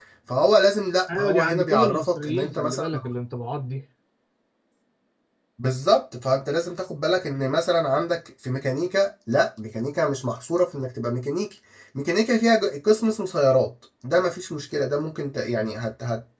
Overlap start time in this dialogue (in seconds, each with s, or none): 1.2 s